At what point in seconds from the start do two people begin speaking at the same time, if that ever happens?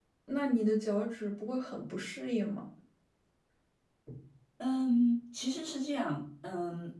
none

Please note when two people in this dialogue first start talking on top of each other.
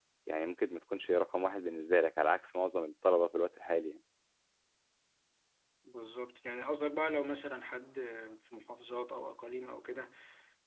none

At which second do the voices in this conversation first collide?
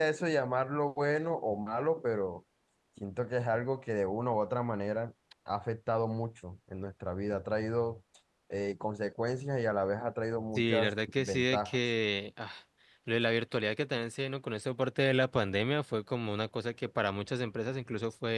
11 s

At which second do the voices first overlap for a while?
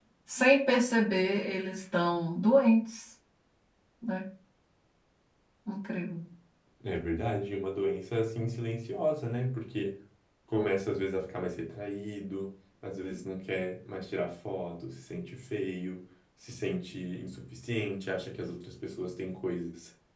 none

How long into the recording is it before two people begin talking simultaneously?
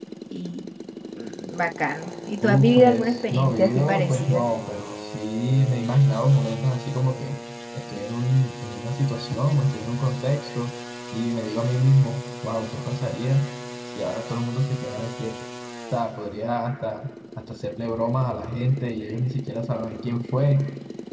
2 s

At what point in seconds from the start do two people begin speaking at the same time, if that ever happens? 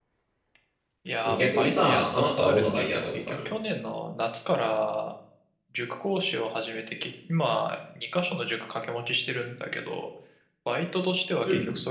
1 s

